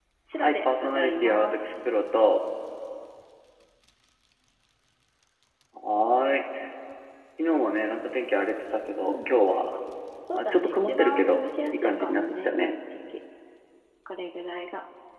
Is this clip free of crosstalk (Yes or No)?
No